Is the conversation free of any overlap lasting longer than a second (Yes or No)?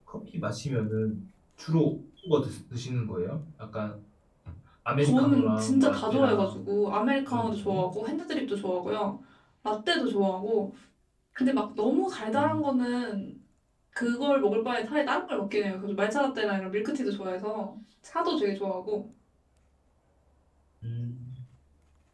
No